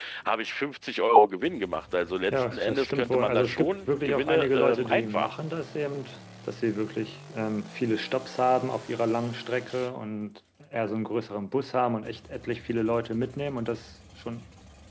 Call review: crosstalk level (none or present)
present